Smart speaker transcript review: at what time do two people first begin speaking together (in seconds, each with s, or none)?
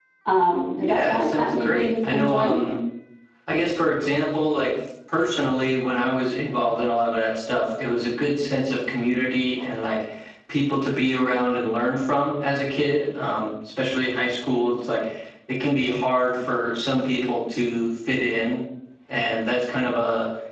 0.8 s